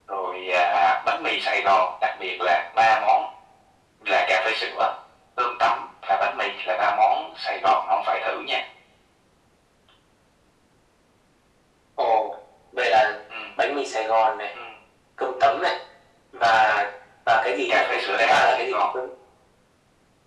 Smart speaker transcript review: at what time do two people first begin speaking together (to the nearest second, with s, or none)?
18 s